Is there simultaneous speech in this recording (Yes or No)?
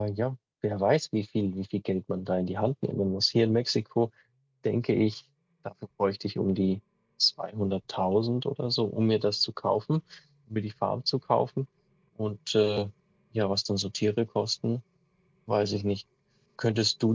No